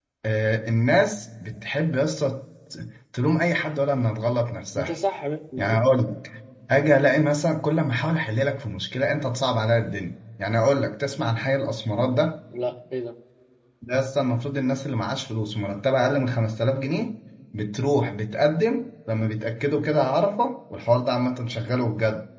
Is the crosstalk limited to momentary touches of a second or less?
Yes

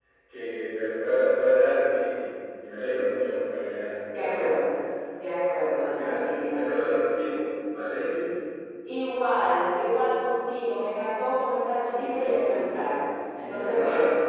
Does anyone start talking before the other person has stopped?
Yes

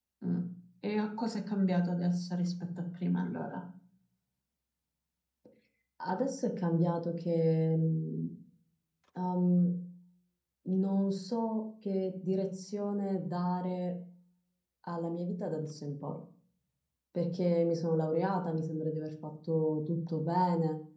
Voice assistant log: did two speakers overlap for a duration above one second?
No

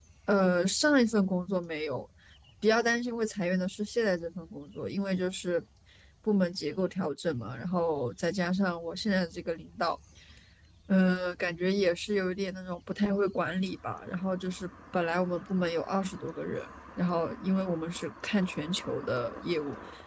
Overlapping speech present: No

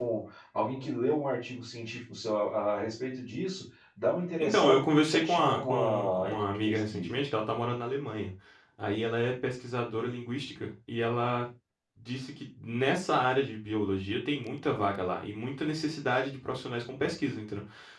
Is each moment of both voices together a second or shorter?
No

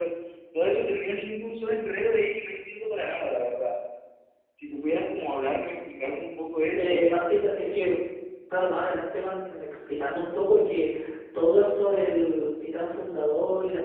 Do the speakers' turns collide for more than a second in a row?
No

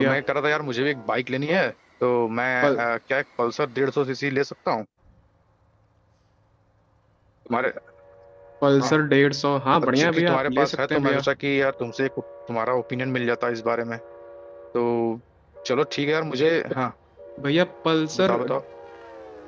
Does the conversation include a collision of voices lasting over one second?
Yes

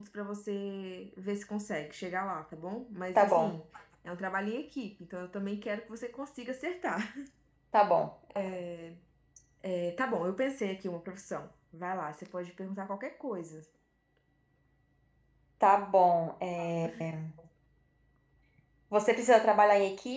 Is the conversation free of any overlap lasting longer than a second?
Yes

